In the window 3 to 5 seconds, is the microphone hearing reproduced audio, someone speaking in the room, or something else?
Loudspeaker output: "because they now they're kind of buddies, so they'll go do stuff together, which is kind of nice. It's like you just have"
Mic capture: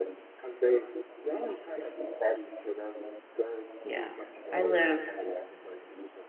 both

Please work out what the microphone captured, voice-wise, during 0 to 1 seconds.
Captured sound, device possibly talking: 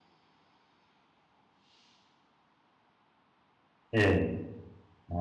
neither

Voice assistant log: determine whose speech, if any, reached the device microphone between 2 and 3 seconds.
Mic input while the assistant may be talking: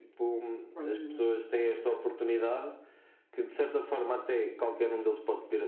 echo only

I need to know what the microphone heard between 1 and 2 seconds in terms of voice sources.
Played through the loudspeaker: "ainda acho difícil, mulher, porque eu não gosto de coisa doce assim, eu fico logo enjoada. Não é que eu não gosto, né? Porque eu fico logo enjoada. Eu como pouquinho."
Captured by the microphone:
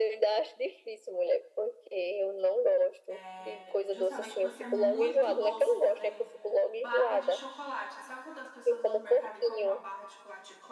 echo only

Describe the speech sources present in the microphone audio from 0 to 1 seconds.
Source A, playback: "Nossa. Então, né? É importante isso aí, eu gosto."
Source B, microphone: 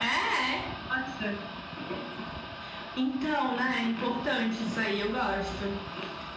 echo only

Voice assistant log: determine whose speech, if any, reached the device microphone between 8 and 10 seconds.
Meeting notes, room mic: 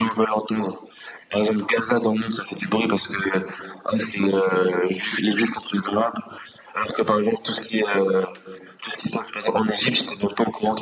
echo only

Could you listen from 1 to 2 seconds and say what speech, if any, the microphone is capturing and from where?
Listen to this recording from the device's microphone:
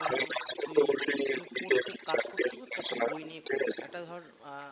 both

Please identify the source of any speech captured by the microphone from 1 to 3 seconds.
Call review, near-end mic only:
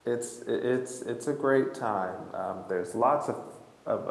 user only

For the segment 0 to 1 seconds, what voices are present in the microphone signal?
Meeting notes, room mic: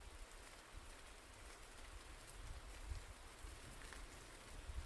neither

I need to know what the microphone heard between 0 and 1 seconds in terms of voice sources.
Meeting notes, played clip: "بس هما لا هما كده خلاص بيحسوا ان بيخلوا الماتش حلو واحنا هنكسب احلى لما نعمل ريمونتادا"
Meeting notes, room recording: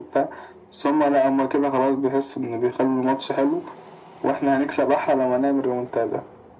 echo only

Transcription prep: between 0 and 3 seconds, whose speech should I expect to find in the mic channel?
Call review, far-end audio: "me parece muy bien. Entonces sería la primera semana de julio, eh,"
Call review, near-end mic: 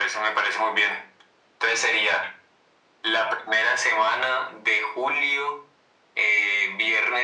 echo only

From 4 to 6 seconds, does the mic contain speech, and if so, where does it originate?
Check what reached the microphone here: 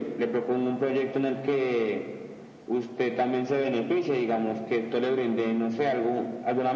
echo only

